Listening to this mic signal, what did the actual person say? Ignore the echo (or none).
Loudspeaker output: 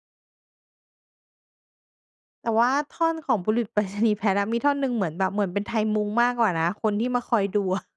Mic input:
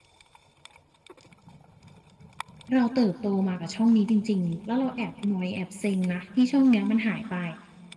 เราเติบโตมากับช่องนี้จริง ๆ แล้วเราแอบนอยแอบเซ็งนะ ที่ช่องเนี้ยมันหายไป